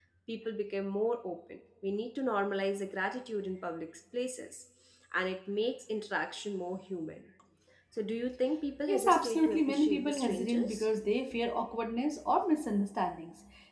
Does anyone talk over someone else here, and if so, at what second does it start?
8.9 s

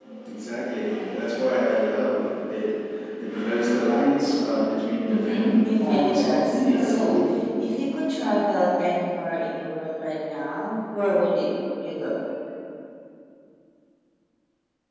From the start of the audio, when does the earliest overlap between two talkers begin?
5.1 s

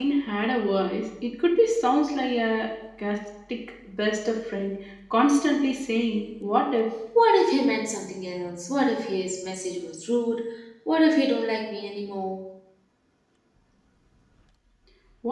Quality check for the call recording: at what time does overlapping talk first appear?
none

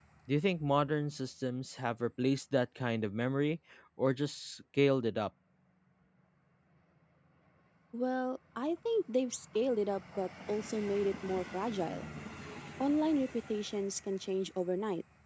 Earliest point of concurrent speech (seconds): none

